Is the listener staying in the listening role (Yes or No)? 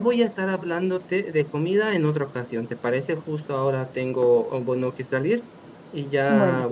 Yes